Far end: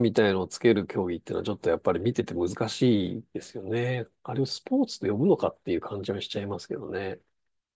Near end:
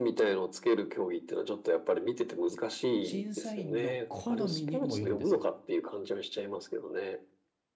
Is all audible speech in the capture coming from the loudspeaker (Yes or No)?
No